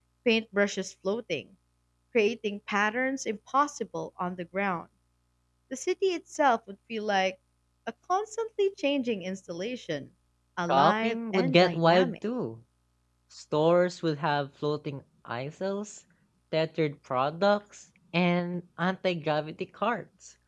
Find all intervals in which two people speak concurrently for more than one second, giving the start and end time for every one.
10.7-12.1

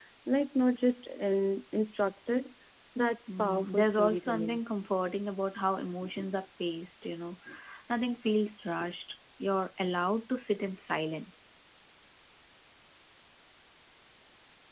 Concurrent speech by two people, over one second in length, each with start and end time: 3.4-4.6

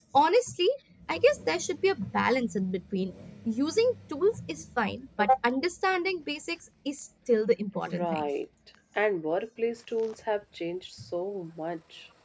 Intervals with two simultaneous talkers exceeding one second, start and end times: none

